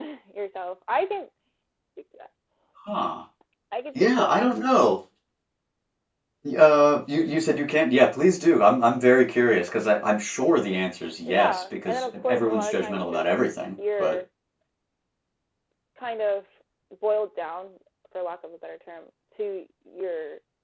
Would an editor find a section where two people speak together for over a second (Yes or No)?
Yes